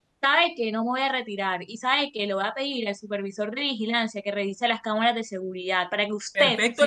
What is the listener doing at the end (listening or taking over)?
taking over